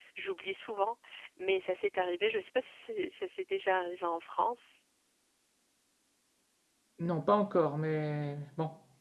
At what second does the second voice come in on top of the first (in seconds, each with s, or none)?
none